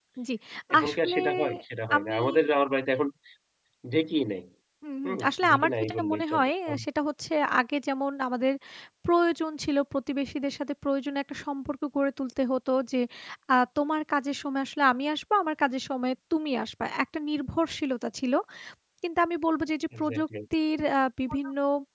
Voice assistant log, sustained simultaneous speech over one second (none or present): present